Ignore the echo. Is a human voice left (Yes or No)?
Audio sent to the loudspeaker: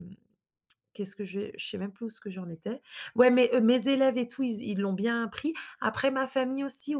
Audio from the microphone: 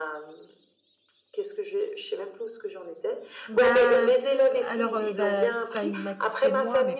Yes